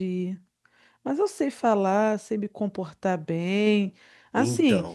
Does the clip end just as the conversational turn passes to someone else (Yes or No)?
No